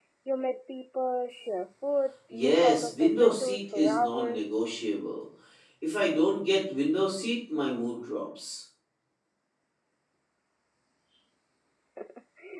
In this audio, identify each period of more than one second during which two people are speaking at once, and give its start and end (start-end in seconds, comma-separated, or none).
2.3-4.6